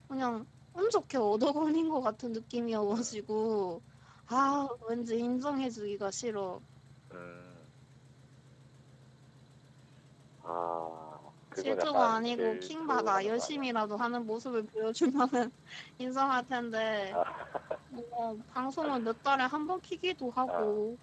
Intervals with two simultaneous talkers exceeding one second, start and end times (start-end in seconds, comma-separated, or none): 11.6-13.7